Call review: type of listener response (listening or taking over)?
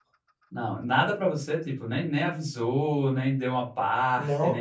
taking over